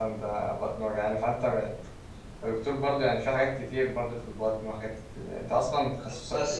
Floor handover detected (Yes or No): Yes